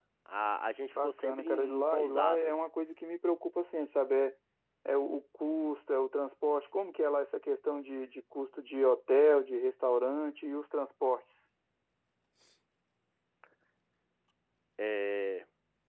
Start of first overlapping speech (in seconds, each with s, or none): 1.0 s